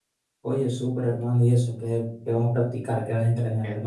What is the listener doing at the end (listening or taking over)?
taking over